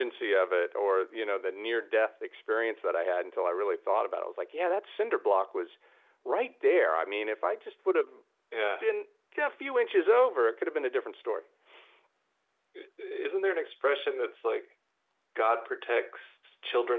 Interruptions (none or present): none